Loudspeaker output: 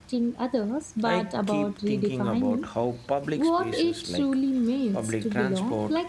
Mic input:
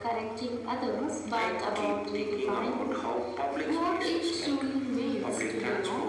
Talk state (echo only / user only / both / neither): echo only